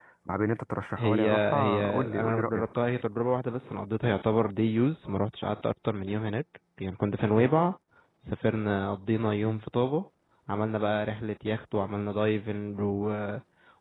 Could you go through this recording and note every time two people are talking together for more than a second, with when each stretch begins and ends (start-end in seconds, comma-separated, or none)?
1.0-2.6